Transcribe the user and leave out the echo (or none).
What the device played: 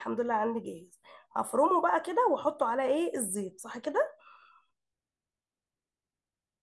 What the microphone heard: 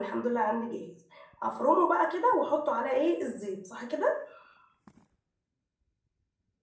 none